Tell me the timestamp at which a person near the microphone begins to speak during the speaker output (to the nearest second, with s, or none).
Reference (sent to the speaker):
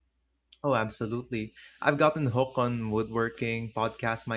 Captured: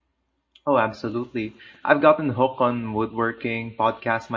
none